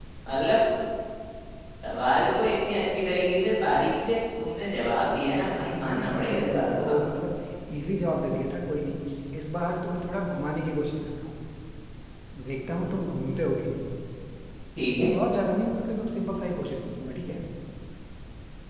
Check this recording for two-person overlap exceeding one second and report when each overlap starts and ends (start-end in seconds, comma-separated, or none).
5.7-7.0